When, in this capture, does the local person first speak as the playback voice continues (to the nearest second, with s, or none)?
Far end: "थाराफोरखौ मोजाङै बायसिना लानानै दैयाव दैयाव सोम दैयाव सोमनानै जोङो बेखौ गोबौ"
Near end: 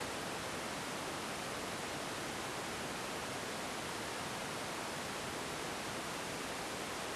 none